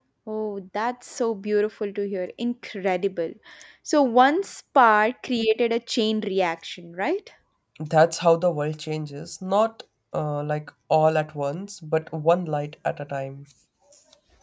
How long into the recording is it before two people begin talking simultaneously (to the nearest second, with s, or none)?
none